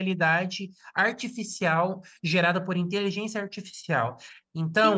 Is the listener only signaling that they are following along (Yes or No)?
Yes